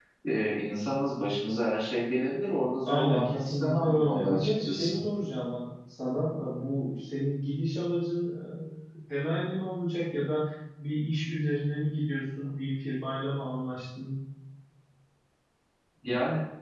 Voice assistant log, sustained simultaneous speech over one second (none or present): present